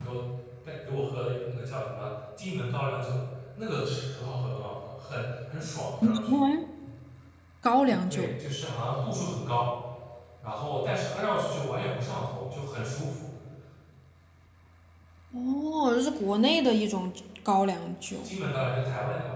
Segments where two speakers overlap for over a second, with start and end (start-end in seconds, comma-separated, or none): none